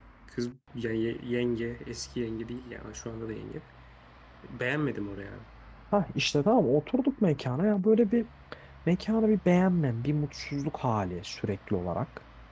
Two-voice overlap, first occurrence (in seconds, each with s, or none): none